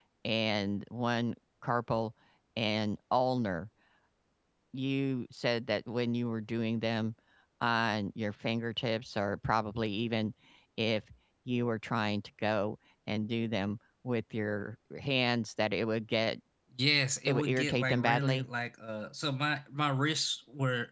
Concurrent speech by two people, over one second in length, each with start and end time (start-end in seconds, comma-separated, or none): 17.3-18.5